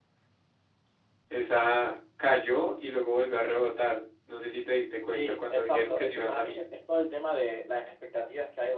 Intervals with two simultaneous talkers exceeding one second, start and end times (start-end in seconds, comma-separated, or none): 5.1-6.6